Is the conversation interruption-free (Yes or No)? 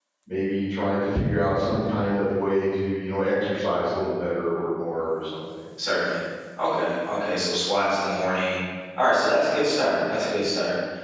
Yes